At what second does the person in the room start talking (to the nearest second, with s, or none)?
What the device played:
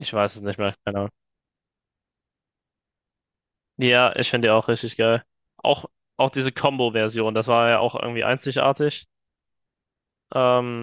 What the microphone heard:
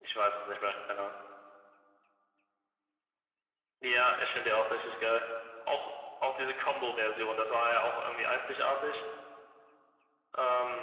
none